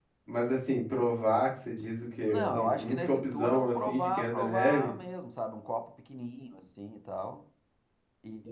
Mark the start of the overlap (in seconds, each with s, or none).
2.3 s